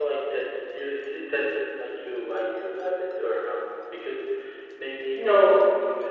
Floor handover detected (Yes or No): No